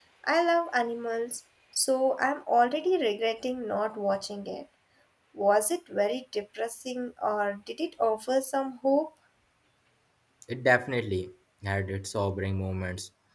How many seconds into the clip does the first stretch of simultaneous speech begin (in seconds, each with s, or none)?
none